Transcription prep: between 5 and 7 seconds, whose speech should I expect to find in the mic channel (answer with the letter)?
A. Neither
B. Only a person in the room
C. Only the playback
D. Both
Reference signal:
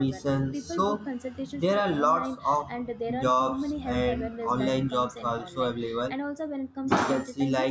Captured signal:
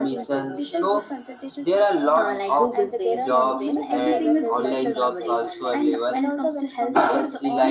D